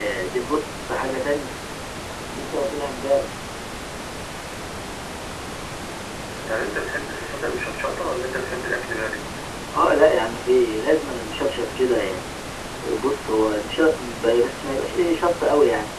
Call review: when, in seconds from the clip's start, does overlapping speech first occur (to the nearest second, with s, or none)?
none